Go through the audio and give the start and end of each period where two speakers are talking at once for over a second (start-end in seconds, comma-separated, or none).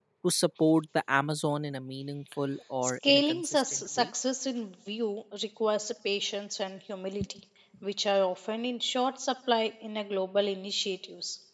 2.8-4.0